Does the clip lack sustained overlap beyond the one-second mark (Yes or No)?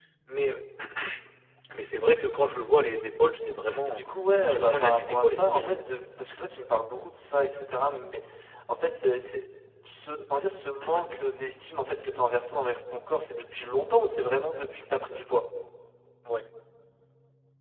No